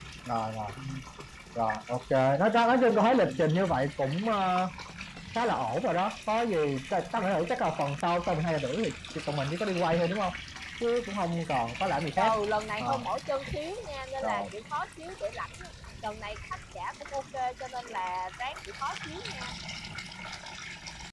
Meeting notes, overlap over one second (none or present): none